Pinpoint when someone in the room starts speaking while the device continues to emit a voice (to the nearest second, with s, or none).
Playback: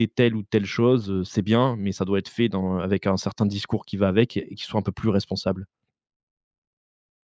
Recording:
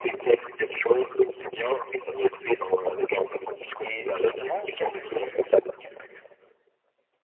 4 s